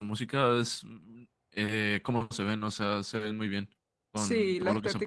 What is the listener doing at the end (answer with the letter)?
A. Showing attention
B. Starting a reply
B